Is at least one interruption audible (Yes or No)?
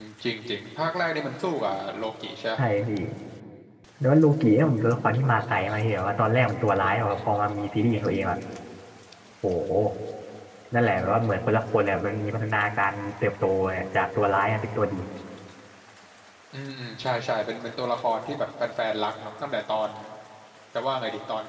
No